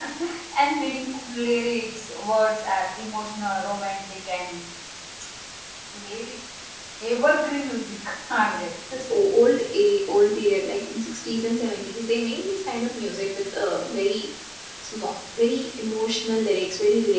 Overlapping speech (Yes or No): No